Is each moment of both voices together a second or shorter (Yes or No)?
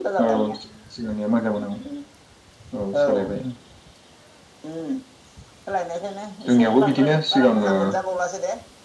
No